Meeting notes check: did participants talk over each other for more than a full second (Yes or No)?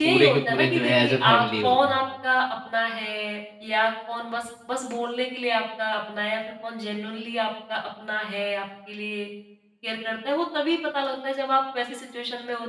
Yes